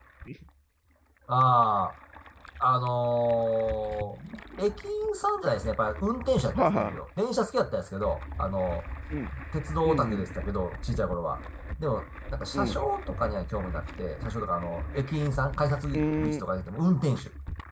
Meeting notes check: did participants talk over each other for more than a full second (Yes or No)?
No